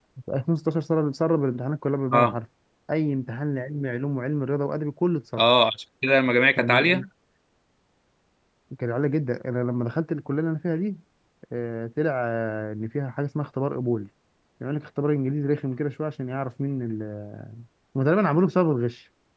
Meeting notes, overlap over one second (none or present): none